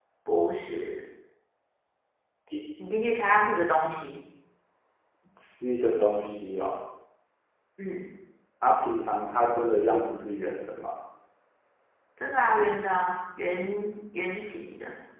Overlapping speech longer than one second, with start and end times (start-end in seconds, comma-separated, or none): none